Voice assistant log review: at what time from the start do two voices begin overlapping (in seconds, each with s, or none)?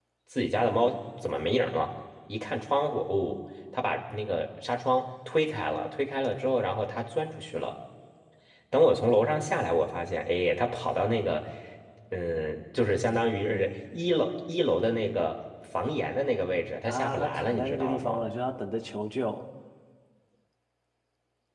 16.9 s